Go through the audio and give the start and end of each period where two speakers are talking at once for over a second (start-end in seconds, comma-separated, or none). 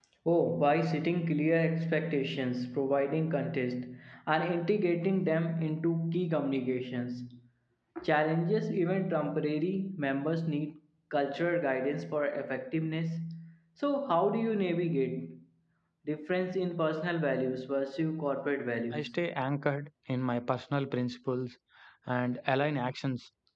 none